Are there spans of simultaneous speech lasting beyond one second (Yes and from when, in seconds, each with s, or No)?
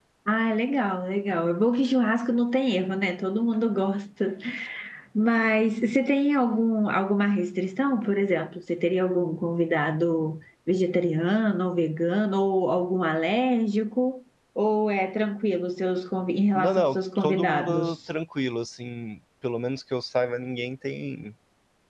Yes, from 16.5 s